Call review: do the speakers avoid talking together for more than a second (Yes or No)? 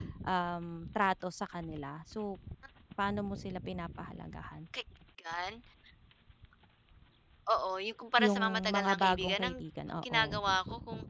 No